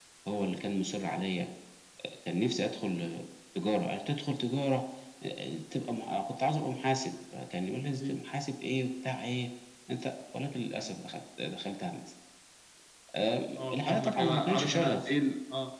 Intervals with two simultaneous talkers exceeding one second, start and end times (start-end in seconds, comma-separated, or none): 13.5-15.0